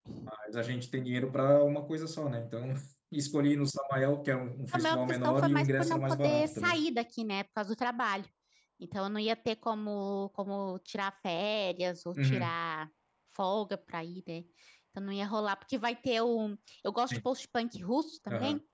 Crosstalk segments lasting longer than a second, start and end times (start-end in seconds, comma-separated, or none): 4.7-6.8